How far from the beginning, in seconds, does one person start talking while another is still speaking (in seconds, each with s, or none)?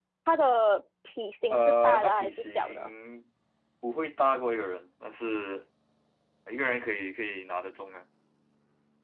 1.5 s